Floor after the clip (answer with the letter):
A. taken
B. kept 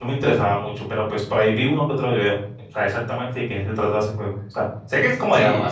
A